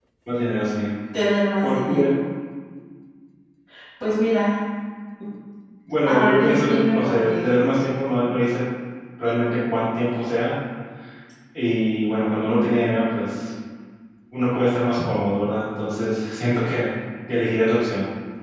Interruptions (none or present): present